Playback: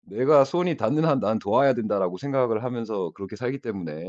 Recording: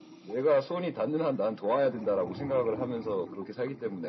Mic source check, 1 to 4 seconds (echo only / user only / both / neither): echo only